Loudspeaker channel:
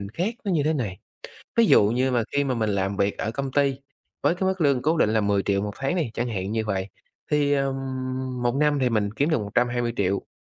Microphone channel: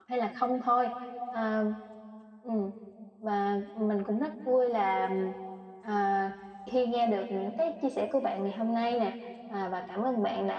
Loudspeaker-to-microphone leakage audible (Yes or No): No